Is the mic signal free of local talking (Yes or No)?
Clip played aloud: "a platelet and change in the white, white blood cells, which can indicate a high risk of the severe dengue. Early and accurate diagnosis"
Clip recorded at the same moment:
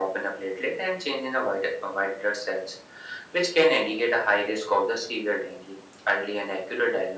Yes